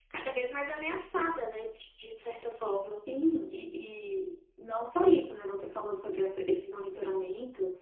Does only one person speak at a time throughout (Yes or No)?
Yes